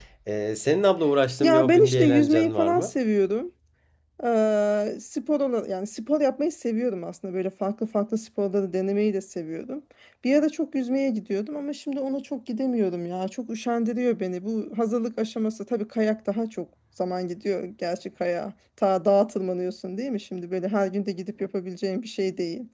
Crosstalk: present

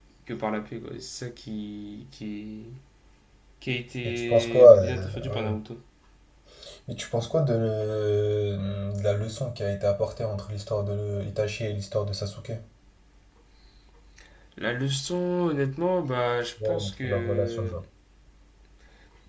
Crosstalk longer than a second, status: present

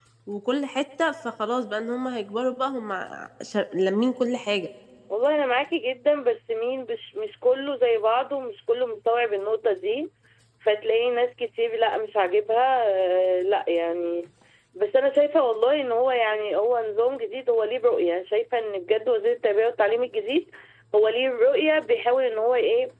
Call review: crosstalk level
none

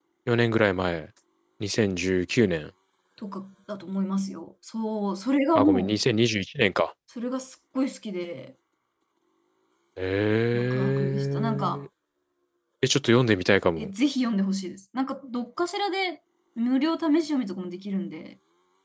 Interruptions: present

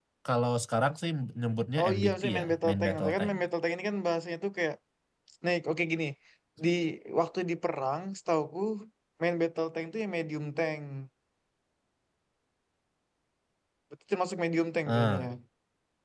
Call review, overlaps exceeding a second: present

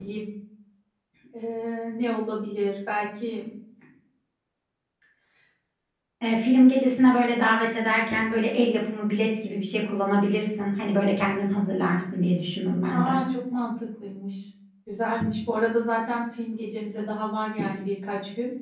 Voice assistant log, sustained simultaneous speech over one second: none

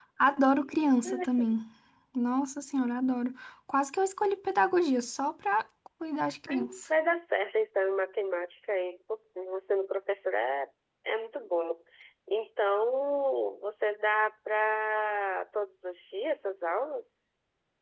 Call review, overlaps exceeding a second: none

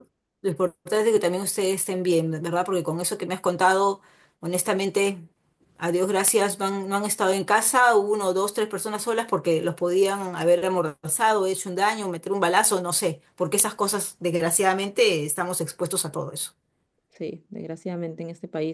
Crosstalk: none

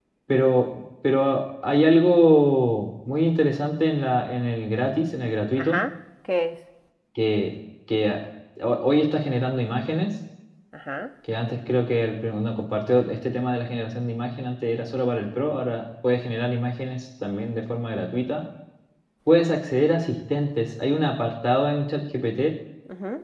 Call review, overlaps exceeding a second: none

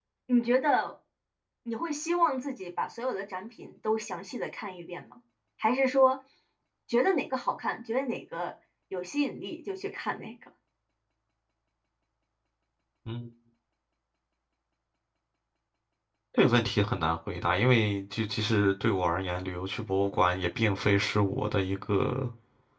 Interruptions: none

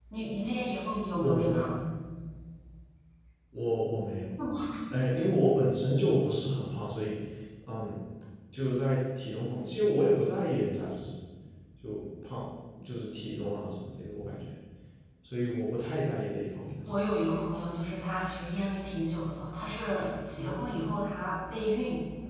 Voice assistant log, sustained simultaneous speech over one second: none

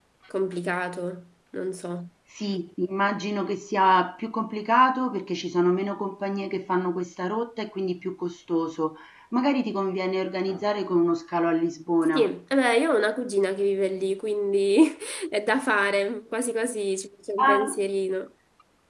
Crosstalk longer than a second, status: none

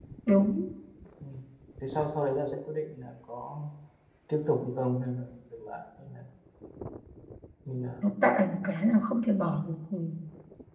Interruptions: none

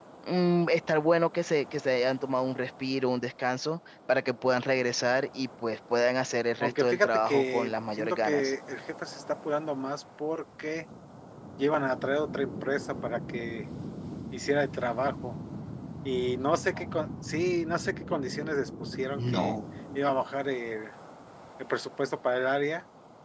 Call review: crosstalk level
present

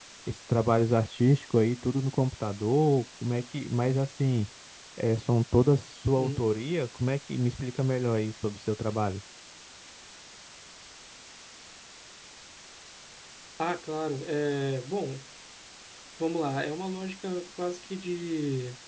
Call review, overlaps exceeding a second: none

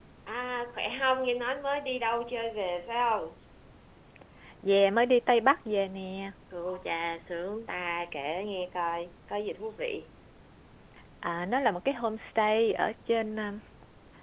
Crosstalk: none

